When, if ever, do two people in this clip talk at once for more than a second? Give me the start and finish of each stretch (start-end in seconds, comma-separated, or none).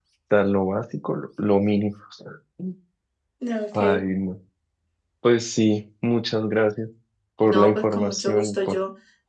7.5-8.8